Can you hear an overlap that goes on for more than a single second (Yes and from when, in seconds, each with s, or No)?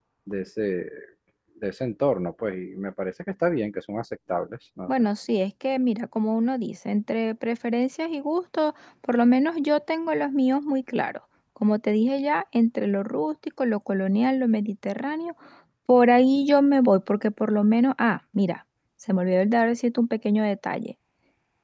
No